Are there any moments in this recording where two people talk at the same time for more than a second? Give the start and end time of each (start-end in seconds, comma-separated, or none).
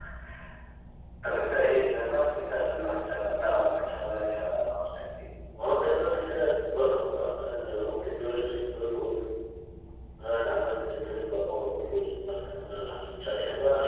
none